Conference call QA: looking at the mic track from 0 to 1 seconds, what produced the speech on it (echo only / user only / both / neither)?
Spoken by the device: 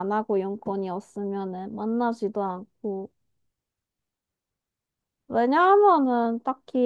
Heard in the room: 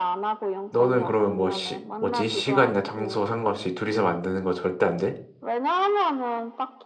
both